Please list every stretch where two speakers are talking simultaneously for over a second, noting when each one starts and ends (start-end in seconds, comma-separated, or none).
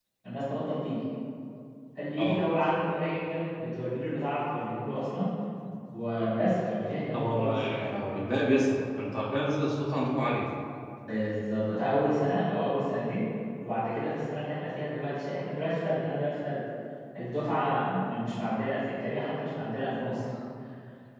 none